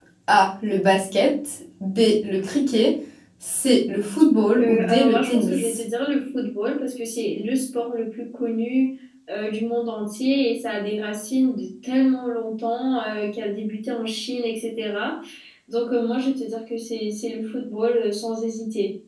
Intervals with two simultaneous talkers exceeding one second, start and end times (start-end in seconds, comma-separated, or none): 4.6-5.8